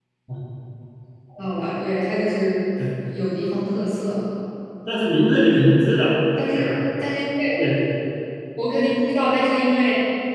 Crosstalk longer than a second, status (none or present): none